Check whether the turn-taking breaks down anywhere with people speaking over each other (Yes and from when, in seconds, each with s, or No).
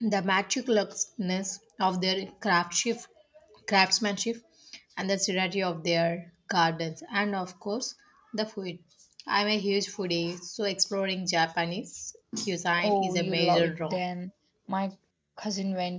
Yes, from 12.8 s